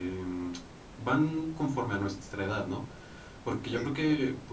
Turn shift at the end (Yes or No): No